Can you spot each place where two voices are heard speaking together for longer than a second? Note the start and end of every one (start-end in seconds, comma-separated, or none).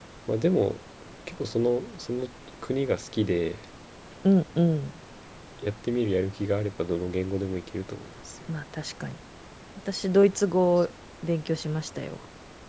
none